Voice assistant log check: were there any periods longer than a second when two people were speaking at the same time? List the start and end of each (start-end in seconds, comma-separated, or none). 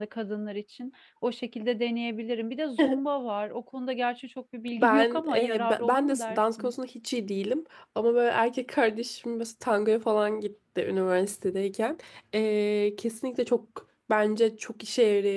4.8-6.7